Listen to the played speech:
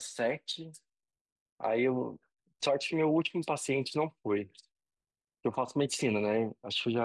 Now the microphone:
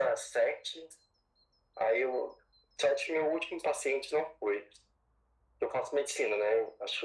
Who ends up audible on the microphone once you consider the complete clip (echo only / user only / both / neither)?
echo only